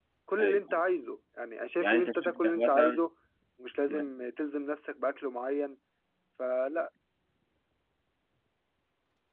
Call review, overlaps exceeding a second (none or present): present